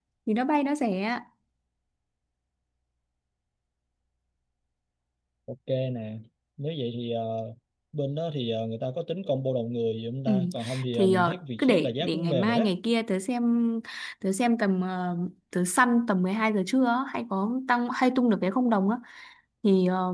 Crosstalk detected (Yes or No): Yes